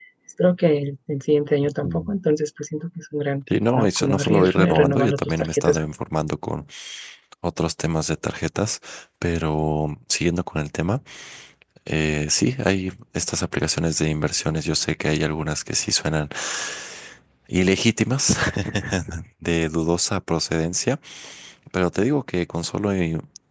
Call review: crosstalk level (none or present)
present